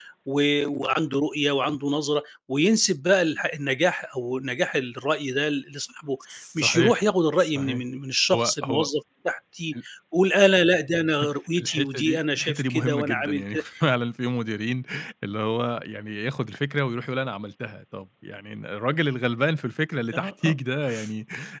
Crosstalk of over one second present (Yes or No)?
Yes